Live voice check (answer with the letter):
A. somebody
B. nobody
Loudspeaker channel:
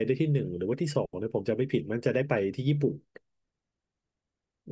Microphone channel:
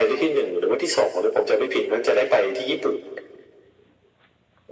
B